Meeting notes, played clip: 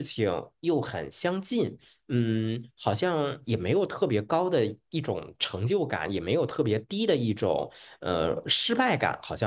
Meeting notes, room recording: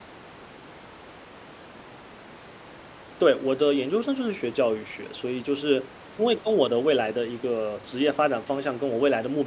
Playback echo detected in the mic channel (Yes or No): No